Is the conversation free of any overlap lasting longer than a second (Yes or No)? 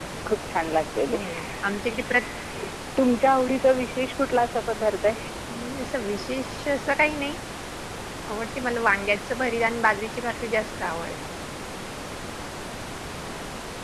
Yes